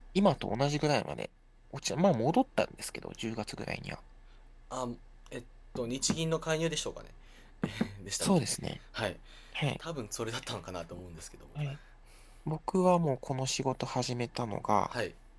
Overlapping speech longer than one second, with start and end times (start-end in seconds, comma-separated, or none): none